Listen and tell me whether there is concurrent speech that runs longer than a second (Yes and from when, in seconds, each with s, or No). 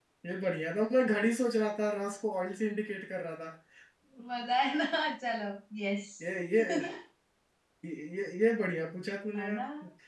No